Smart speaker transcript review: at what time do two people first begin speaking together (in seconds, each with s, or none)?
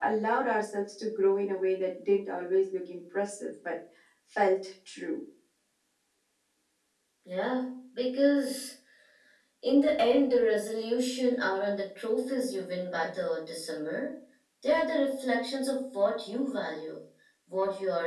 none